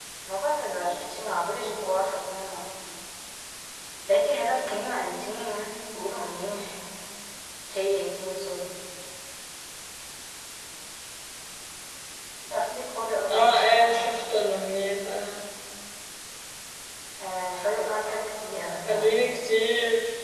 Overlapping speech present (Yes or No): Yes